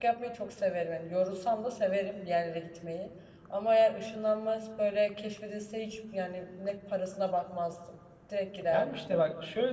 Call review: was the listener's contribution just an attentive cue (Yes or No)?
No